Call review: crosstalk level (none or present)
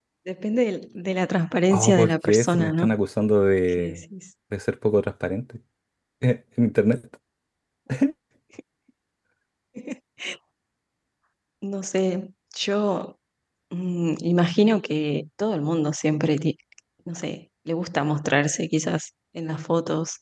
present